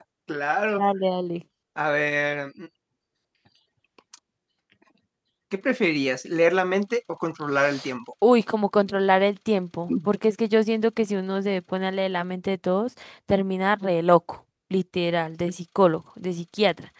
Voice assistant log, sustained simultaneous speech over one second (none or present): none